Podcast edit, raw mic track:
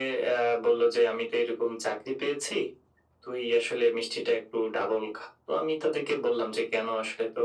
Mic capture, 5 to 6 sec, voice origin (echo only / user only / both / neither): echo only